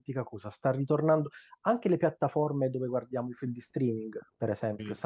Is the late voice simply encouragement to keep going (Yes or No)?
Yes